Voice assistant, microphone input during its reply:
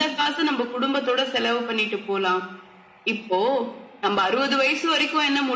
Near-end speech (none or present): none